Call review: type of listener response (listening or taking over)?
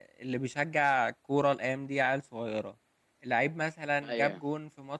listening